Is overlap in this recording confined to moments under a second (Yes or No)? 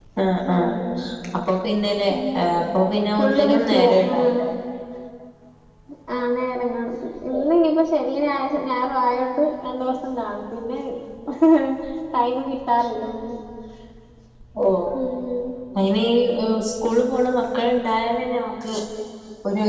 No